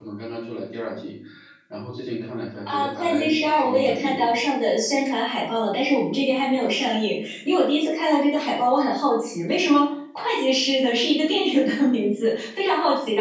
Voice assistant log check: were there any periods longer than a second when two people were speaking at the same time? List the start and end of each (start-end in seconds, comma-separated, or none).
2.7-4.2